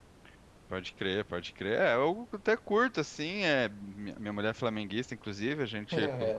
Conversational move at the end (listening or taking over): listening